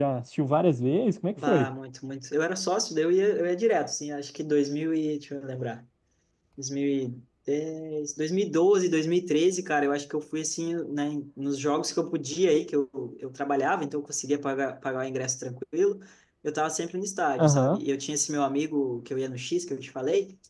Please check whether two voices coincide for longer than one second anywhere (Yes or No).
No